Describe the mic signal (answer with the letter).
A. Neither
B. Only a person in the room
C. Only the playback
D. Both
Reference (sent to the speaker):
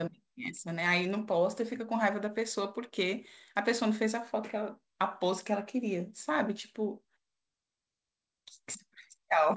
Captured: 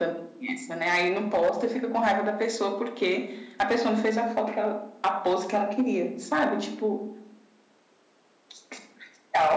C